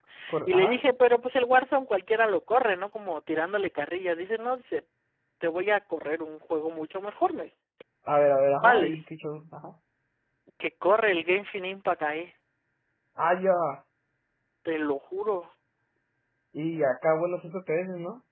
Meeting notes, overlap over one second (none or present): none